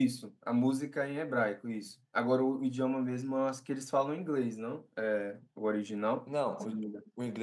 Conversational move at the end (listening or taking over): taking over